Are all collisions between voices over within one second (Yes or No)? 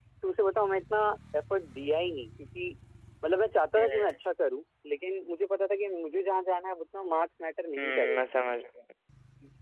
Yes